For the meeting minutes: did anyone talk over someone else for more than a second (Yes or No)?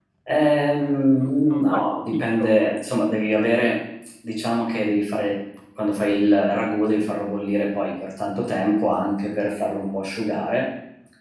Yes